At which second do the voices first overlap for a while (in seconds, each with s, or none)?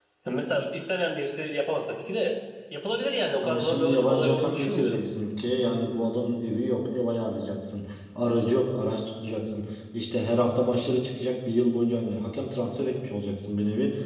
3.4 s